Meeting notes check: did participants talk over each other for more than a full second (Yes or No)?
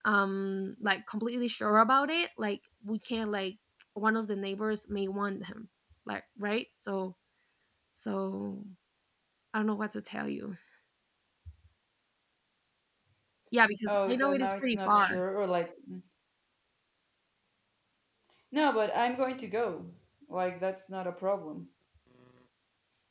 Yes